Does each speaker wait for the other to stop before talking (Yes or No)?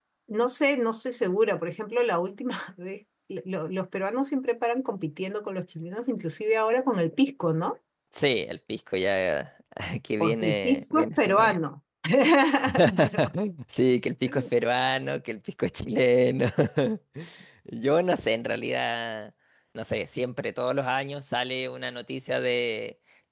No